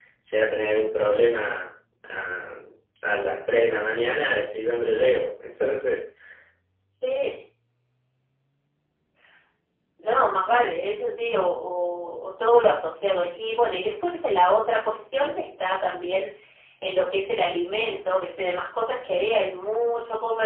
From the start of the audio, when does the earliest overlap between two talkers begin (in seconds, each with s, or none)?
none